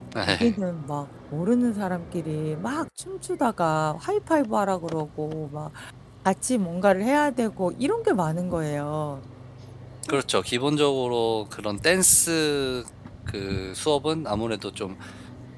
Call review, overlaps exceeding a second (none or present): none